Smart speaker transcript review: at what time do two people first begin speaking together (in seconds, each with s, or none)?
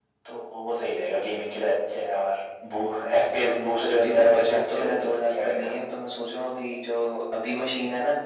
3.4 s